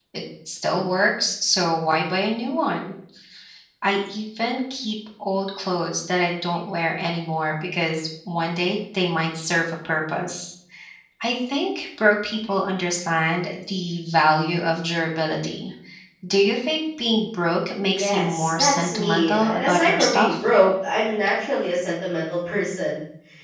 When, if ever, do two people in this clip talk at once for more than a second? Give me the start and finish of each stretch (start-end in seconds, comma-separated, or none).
17.9-20.4